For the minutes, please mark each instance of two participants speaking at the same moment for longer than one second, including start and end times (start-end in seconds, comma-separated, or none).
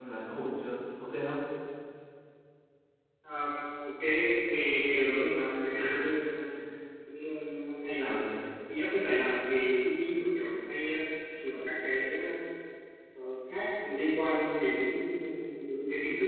none